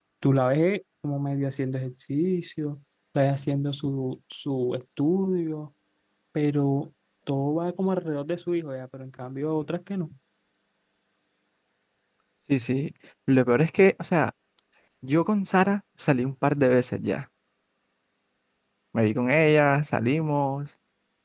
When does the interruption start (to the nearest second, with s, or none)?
none